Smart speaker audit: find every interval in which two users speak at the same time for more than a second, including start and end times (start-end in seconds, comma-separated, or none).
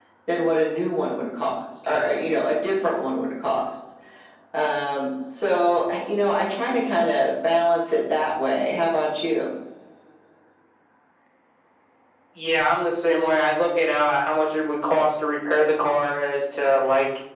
none